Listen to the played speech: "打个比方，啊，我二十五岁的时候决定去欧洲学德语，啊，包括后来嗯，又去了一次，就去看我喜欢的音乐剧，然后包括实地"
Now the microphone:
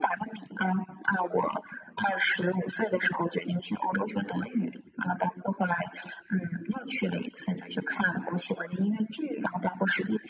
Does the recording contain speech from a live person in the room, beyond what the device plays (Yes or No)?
No